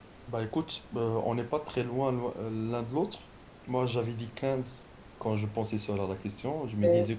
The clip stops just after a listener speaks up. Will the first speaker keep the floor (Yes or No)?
Yes